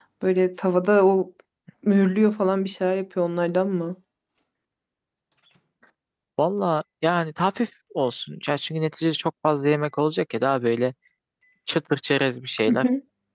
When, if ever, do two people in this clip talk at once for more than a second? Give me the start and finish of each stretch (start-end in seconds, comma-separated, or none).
none